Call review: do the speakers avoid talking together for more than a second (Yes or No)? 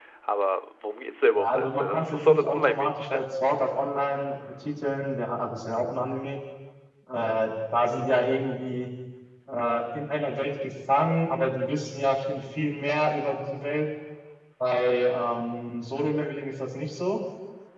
No